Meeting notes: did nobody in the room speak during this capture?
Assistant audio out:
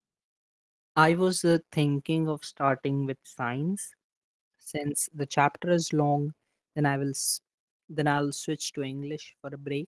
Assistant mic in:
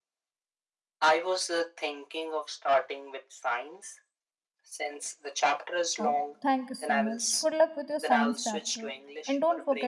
No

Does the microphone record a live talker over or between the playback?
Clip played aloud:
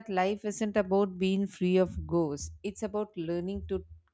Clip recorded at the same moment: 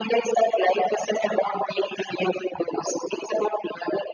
No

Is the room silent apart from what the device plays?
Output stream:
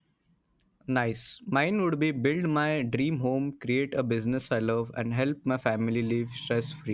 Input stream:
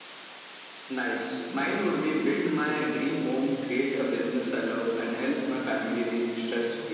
Yes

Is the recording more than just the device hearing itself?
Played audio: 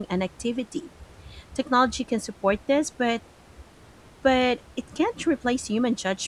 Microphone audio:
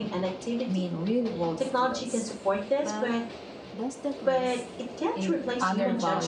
Yes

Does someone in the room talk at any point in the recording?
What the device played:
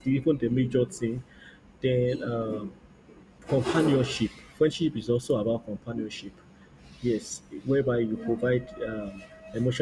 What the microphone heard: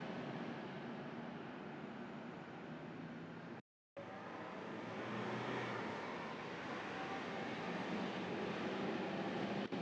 No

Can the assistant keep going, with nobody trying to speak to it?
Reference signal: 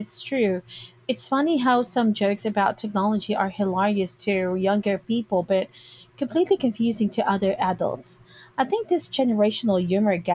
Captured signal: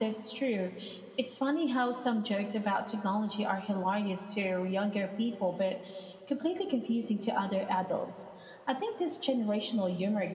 Yes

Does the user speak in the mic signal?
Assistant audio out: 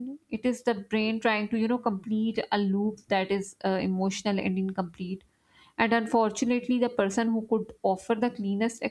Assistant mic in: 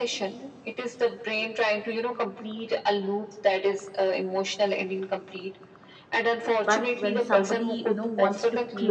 Yes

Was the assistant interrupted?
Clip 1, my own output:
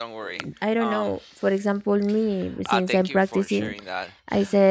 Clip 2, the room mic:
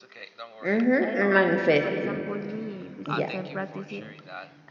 Yes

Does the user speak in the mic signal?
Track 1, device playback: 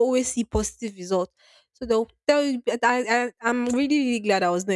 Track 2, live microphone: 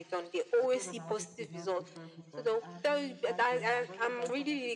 Yes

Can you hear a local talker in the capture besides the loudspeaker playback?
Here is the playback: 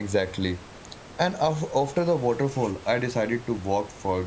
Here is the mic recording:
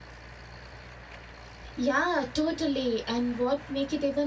Yes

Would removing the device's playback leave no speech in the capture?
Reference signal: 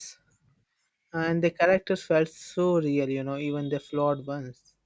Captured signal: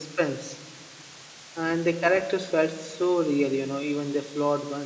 Yes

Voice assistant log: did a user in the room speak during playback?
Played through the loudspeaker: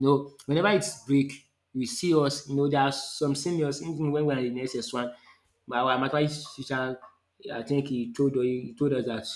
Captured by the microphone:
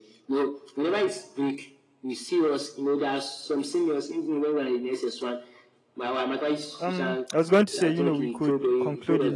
Yes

